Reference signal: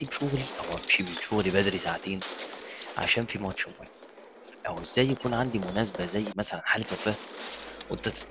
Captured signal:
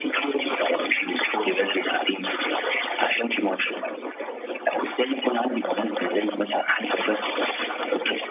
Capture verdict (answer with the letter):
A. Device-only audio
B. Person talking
A